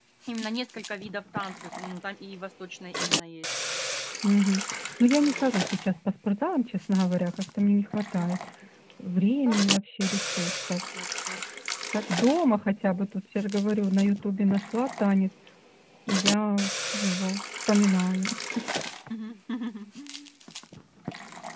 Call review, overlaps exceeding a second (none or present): none